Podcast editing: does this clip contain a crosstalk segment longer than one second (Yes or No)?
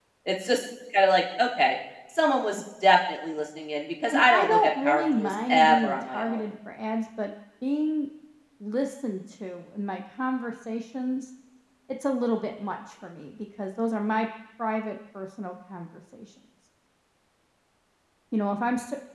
Yes